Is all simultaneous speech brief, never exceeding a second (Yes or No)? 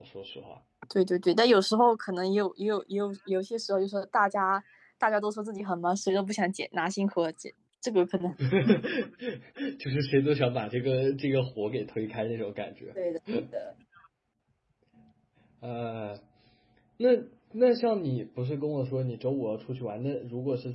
Yes